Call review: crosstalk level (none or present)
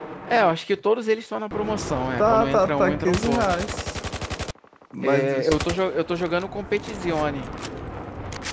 present